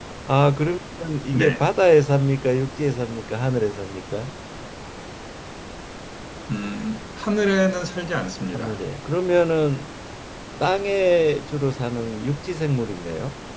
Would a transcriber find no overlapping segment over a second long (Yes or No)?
Yes